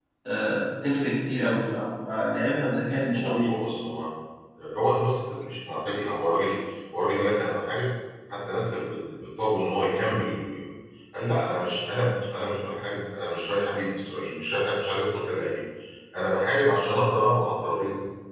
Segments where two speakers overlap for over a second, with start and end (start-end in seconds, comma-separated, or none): none